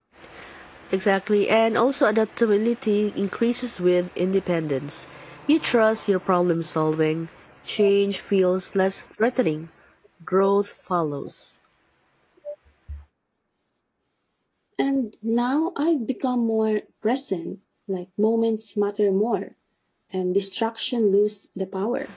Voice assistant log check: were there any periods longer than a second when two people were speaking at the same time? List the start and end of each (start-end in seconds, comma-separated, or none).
none